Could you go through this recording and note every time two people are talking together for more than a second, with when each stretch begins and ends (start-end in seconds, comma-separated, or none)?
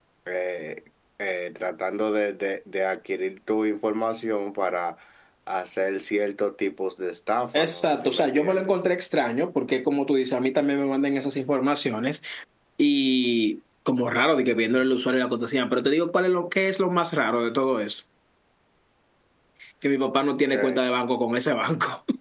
7.5-8.7